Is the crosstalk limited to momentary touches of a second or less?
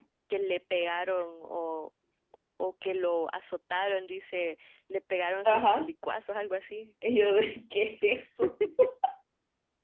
Yes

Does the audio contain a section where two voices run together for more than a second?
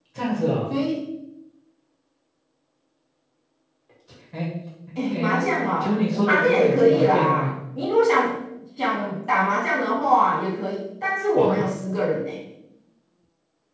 Yes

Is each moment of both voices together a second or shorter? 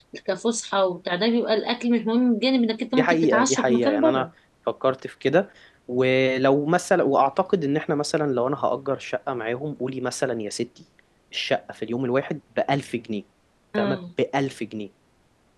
No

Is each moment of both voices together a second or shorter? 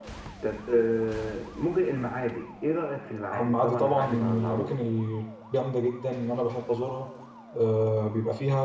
No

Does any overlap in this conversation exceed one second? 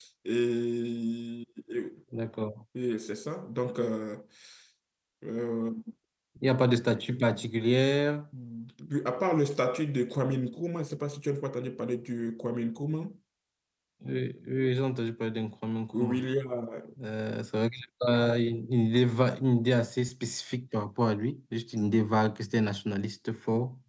No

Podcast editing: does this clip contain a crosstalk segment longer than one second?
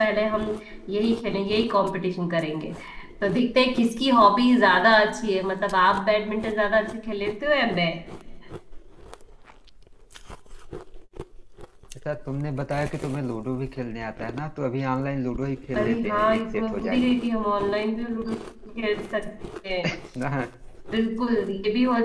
Yes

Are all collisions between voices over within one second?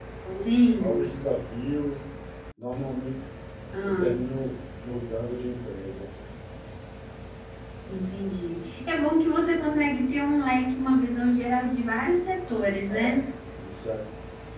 Yes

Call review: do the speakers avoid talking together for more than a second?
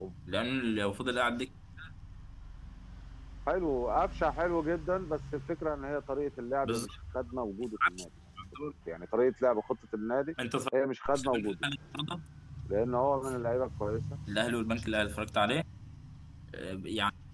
Yes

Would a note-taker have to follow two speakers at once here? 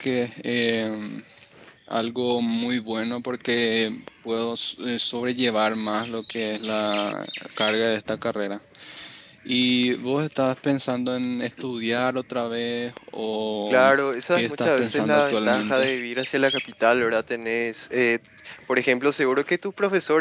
Yes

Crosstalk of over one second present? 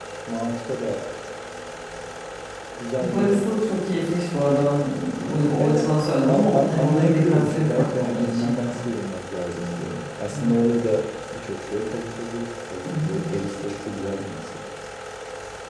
Yes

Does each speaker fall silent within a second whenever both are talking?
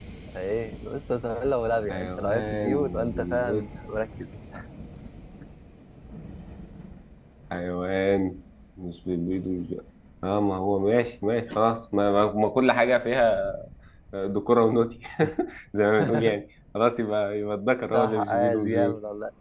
No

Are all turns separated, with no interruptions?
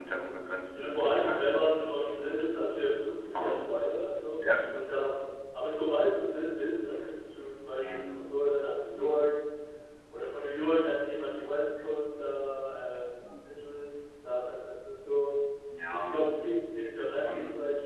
No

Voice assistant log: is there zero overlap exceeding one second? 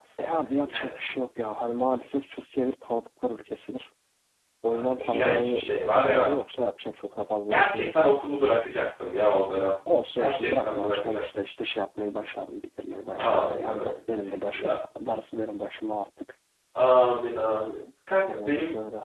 No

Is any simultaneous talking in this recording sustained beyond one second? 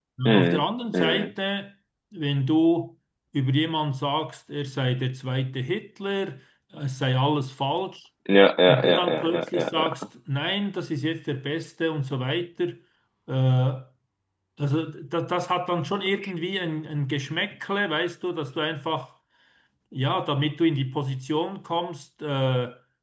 Yes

